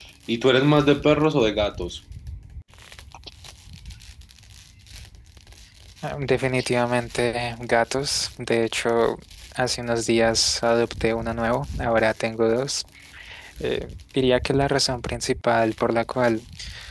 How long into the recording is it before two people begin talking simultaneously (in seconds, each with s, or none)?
none